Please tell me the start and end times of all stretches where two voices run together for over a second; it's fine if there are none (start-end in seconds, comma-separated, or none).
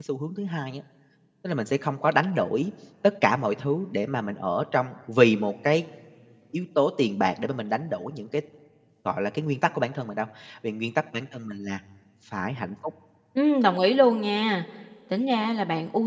none